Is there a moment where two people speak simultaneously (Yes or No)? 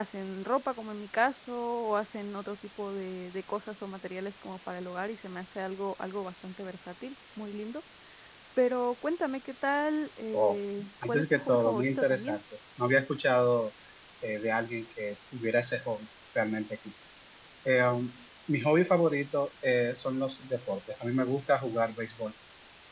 Yes